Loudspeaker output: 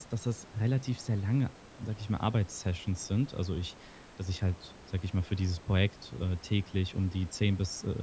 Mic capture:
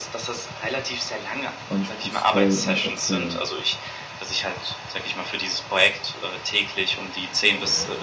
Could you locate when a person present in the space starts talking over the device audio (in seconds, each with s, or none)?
1.7 s